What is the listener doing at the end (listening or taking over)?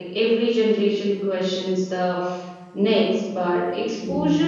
listening